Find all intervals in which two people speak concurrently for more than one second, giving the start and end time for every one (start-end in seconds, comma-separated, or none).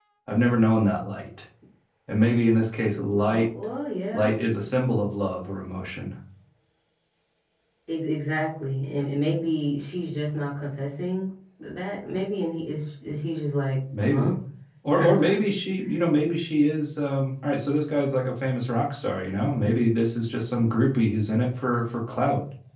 none